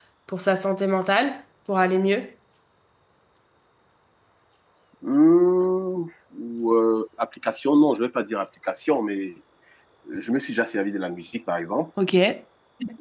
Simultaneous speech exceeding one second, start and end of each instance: none

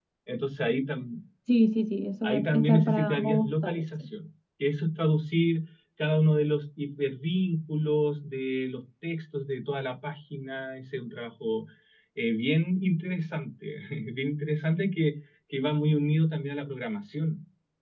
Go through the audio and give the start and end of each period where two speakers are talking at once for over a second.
2.2-3.8

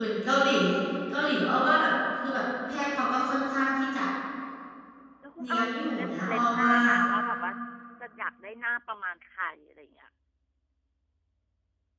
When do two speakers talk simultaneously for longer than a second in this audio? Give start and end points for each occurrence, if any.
5.4-6.7

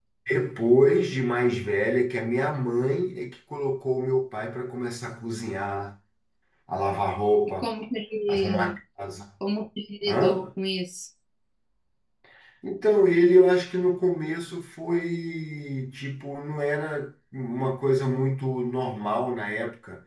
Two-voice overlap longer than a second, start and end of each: none

